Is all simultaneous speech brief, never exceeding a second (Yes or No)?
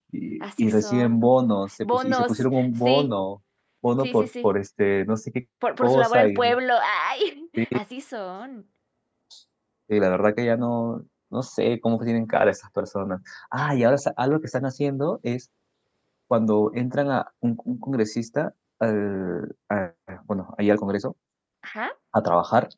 No